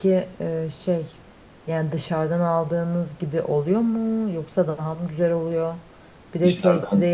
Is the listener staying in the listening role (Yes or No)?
Yes